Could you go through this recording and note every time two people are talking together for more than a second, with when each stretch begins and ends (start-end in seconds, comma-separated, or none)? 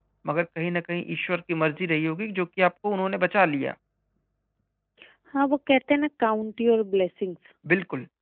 none